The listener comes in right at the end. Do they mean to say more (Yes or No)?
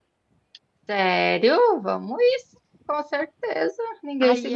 Yes